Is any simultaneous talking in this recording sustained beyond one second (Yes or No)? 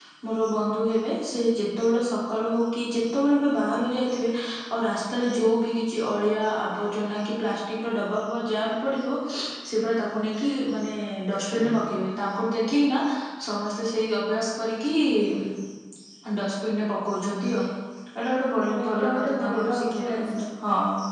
Yes